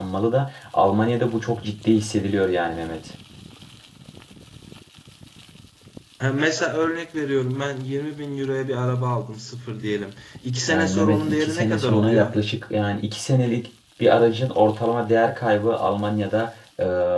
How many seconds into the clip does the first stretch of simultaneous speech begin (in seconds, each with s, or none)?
10.7 s